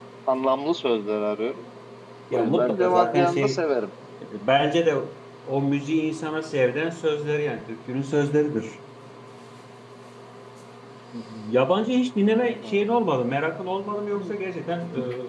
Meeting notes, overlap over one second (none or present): present